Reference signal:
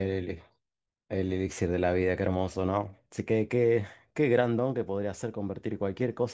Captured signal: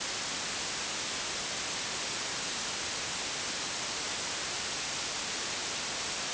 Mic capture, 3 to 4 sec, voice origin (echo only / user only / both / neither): neither